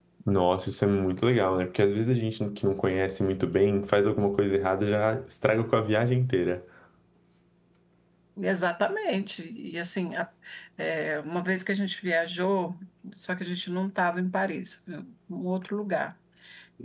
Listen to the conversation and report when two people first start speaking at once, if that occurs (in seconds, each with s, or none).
none